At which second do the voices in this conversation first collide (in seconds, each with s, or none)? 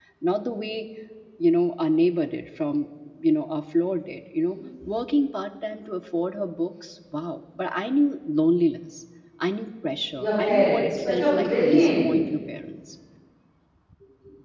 10.2 s